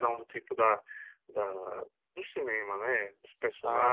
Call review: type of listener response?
taking over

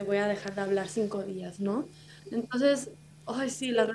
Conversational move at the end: taking over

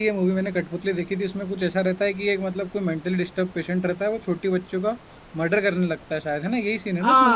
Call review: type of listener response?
taking over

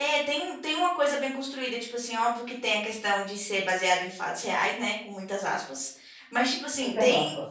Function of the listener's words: listening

